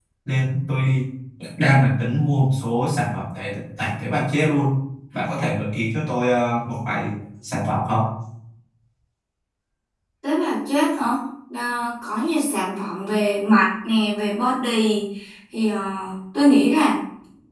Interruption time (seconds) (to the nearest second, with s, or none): none